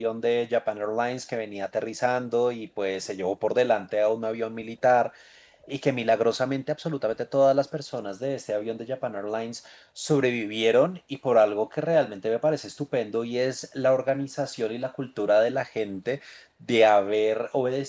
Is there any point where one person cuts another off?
No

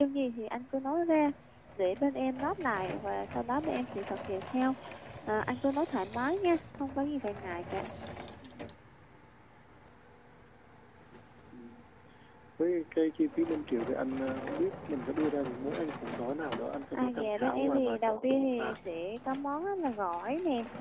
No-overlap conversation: No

